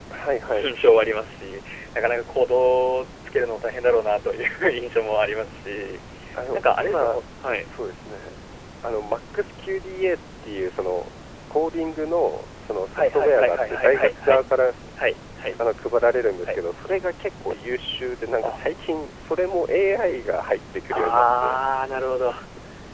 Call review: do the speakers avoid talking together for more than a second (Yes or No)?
No